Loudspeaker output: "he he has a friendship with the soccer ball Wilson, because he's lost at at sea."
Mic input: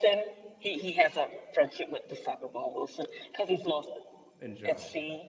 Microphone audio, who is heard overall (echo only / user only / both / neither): both